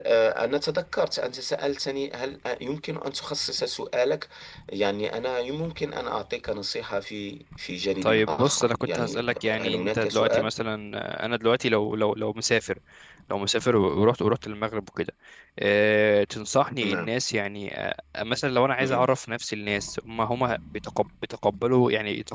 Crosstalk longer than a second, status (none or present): present